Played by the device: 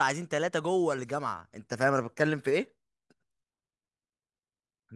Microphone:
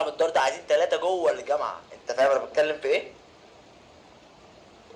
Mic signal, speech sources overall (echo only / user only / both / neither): echo only